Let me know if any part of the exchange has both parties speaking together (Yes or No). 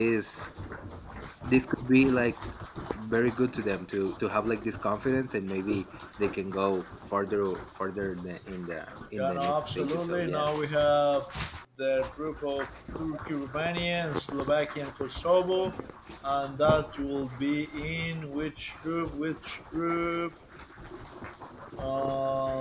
Yes